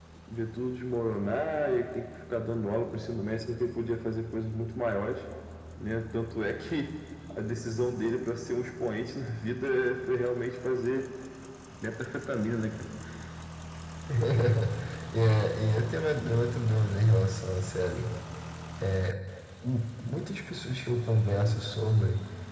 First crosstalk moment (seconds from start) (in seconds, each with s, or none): none